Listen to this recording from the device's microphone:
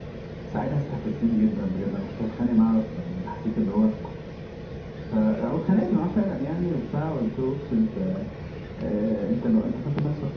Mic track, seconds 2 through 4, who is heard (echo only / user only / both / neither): echo only